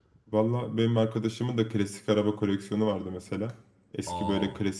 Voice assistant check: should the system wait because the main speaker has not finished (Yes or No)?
Yes